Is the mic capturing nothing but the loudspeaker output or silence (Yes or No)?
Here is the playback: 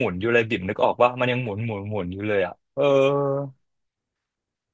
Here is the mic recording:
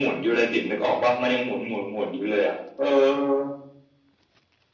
Yes